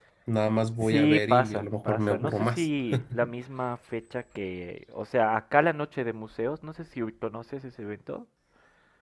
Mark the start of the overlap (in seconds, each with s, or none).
0.8 s